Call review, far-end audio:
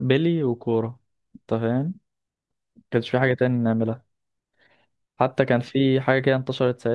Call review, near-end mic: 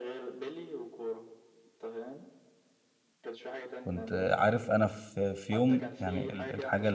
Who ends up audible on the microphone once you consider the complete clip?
both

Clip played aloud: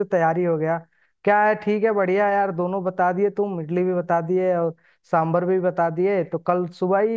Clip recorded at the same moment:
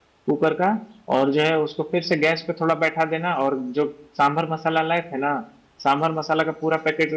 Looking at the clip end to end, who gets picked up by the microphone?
user only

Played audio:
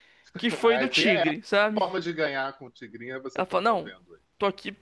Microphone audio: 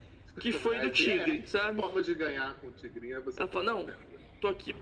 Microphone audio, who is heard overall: echo only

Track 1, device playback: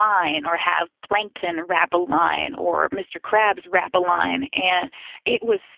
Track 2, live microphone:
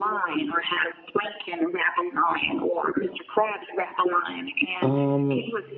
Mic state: both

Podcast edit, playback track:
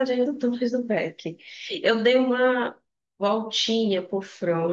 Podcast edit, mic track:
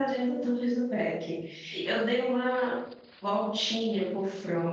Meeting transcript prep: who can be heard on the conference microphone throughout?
echo only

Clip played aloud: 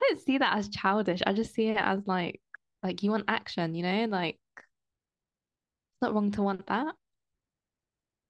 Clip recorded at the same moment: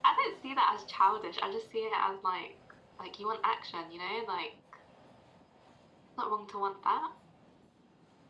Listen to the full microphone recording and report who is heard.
echo only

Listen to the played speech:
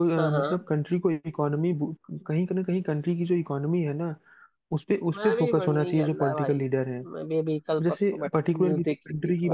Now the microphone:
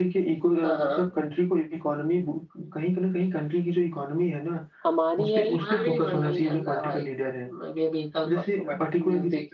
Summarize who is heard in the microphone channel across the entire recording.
both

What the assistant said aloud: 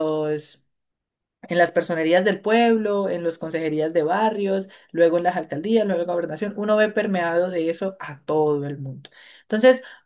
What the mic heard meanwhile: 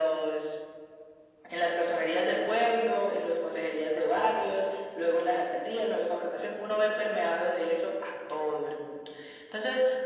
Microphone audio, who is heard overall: echo only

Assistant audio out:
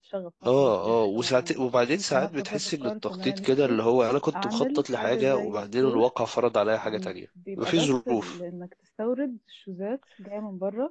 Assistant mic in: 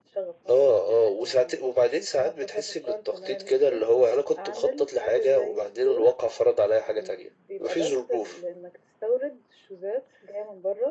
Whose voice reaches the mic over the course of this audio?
echo only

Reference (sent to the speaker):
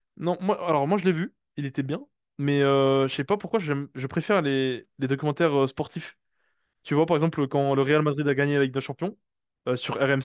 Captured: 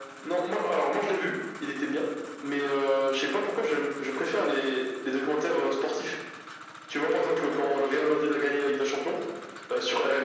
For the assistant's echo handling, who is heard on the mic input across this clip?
echo only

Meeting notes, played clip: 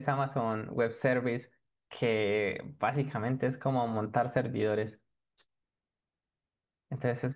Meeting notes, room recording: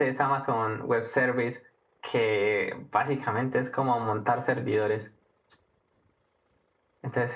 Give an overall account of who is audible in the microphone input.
echo only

